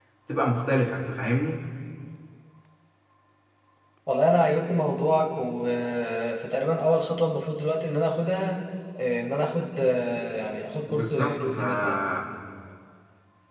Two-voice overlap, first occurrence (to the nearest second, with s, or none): 11 s